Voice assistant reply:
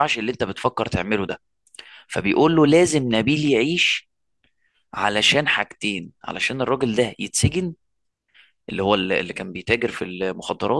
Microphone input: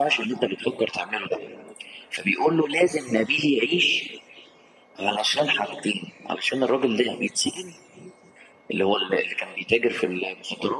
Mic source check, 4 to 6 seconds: echo only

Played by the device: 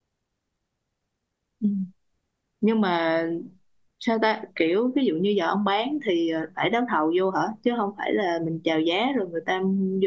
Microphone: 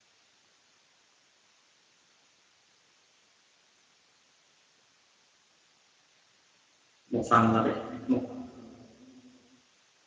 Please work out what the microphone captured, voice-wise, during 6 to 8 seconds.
user only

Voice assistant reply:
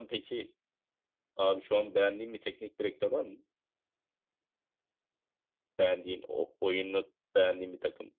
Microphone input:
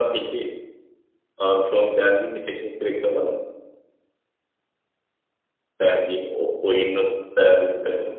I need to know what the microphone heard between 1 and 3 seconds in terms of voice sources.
echo only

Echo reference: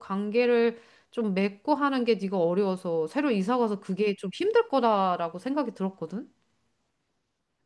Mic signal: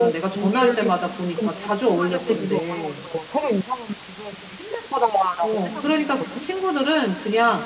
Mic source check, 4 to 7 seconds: both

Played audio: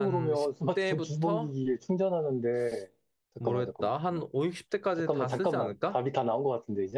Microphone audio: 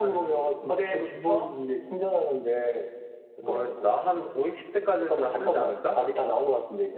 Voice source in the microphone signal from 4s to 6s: echo only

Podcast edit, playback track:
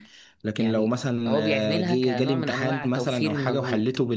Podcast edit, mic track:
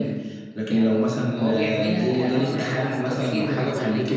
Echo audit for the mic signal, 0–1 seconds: echo only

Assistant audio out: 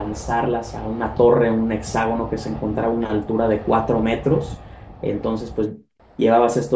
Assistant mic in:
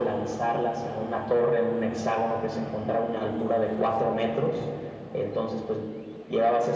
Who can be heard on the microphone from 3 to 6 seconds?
echo only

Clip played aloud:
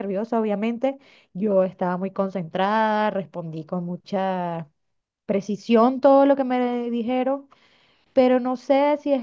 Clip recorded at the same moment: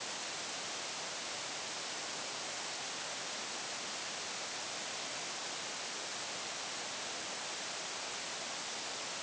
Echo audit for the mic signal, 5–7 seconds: neither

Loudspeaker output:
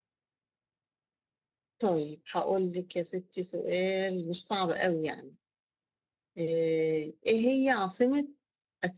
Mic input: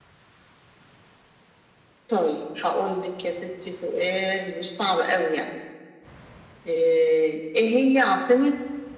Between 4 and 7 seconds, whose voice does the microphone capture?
echo only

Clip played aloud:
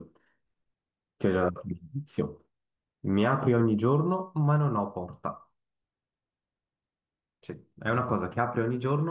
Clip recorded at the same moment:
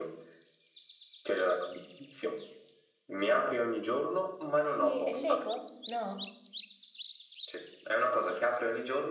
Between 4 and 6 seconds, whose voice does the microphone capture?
both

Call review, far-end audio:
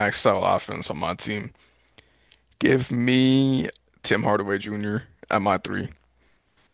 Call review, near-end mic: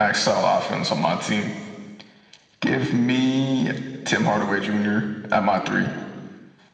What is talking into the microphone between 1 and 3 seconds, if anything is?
echo only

